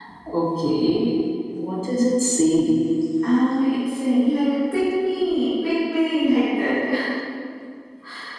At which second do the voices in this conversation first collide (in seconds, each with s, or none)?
none